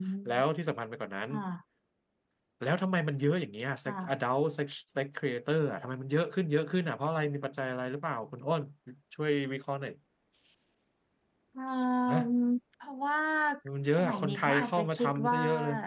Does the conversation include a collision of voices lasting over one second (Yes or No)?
Yes